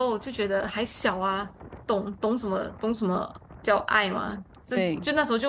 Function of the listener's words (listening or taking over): listening